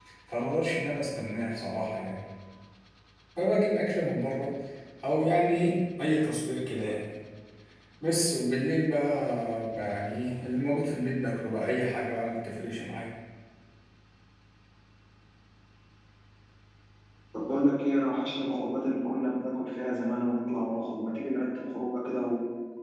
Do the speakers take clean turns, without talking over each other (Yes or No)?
Yes